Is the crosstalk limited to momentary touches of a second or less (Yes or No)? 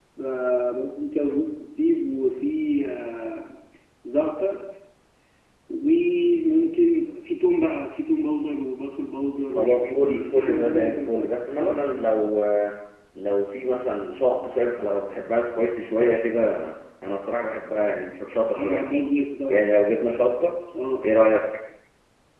No